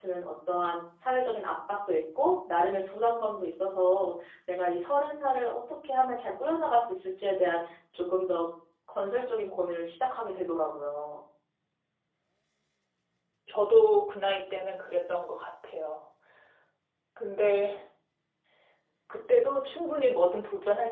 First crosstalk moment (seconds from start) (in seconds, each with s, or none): none